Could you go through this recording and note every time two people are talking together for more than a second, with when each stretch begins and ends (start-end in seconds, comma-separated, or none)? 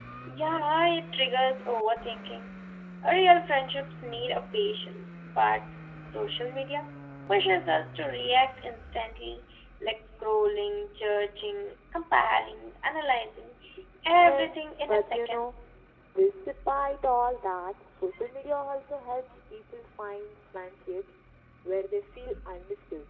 14.2-15.5